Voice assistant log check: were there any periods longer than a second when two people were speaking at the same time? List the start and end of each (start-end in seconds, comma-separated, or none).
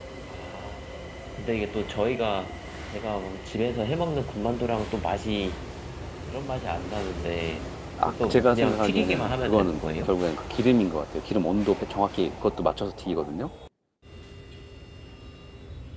8.1-10.1